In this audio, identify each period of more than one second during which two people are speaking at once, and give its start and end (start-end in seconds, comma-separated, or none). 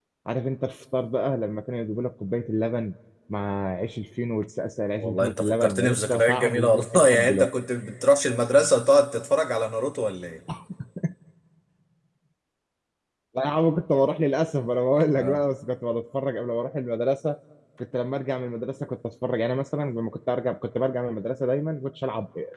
5.0-7.5